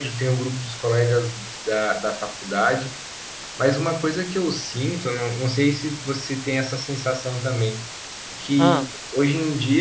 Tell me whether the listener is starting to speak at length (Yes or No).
No